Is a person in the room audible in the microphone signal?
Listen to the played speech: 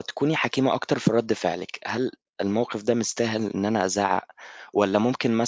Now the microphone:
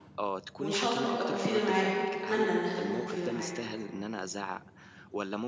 Yes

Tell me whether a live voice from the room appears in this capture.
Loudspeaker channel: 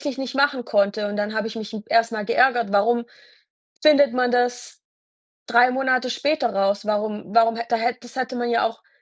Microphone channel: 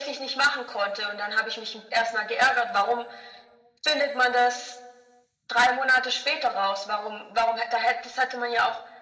No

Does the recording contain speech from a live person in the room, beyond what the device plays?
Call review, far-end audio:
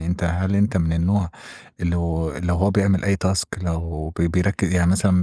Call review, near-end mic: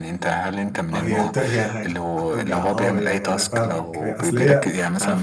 Yes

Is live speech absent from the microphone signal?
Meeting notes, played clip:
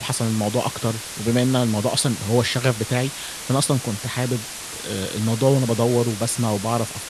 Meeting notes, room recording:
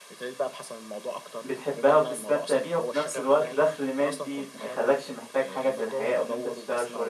No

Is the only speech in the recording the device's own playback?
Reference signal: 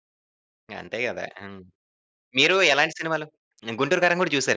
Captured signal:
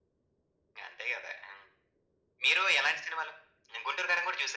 Yes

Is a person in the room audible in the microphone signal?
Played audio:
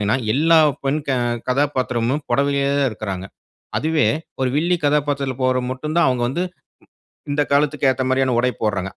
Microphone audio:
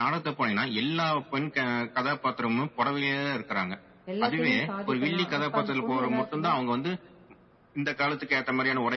Yes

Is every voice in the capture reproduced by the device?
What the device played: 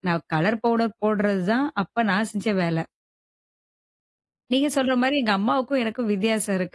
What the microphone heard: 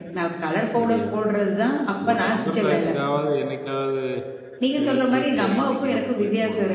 No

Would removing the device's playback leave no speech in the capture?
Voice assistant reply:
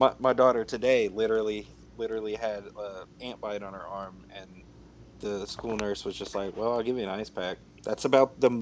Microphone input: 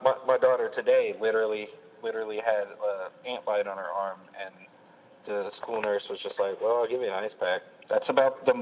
Yes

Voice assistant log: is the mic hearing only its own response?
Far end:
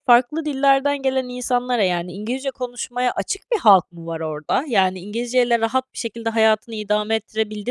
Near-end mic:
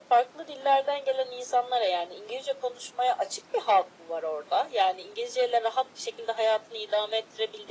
Yes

